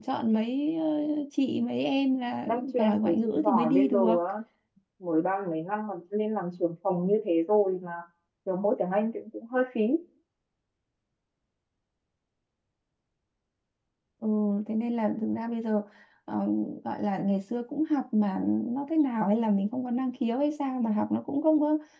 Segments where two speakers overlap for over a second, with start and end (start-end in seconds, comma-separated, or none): 2.5-4.2